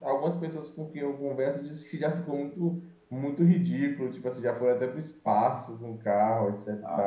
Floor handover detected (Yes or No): Yes